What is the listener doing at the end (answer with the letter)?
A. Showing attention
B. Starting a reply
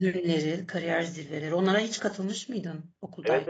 B